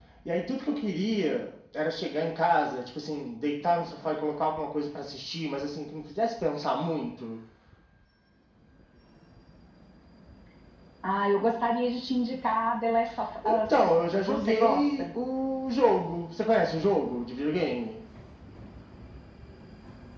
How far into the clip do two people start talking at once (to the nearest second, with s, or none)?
13 s